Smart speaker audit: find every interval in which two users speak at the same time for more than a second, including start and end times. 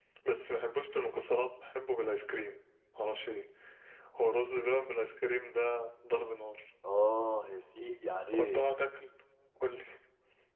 none

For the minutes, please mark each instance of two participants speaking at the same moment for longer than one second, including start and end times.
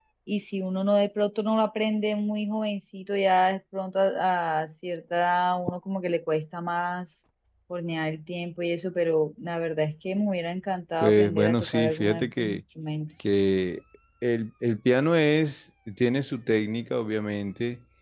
11.0-12.6

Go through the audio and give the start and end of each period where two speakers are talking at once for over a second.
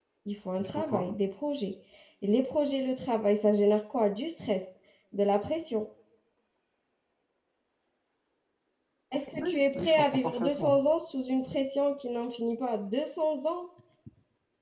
9.3-10.8

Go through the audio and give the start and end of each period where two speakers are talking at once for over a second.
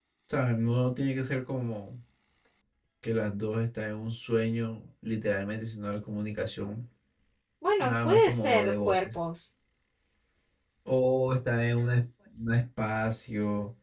7.8-9.1

